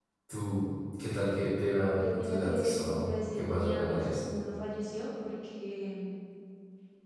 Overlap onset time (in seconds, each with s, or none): 1.9 s